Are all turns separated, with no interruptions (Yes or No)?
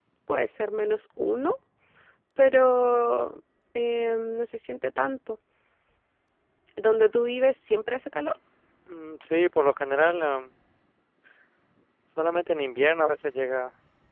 Yes